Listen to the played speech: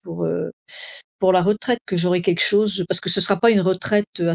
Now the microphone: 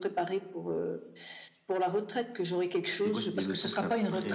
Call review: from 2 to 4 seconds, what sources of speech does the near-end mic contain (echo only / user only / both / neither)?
both